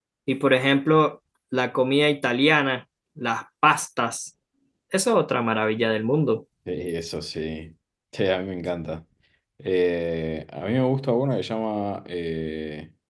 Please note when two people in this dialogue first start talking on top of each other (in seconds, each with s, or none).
none